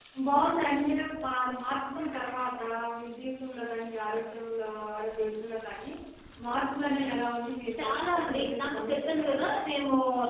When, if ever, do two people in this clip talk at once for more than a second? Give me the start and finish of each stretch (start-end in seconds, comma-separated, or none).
7.8-9.5